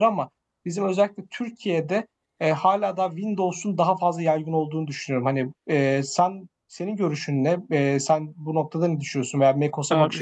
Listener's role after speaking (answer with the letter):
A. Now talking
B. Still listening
A